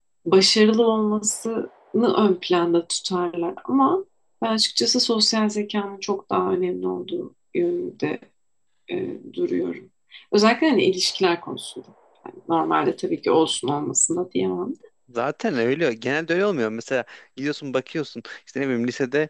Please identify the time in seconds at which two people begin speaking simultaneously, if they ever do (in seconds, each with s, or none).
none